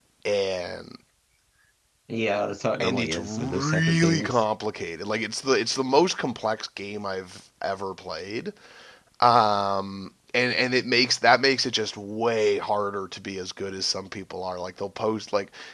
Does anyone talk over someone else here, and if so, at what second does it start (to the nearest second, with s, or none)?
3 s